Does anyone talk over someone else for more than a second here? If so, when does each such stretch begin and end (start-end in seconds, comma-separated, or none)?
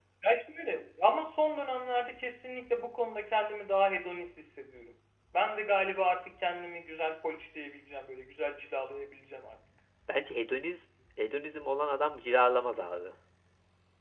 none